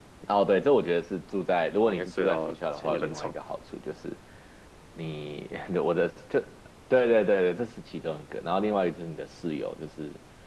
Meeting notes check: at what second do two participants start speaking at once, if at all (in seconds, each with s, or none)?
1.8 s